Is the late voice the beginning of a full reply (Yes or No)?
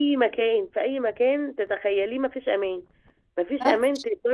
No